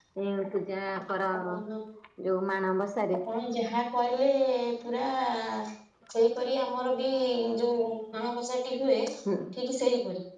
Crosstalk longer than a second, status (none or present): none